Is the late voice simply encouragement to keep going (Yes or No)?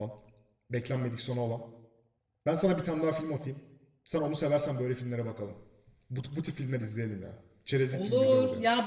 No